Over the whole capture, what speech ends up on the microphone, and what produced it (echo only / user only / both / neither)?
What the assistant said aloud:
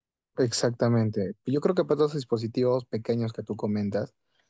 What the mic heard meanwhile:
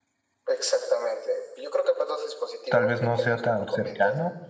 both